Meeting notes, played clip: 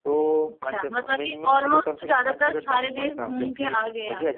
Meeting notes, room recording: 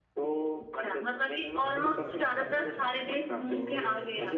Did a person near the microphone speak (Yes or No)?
Yes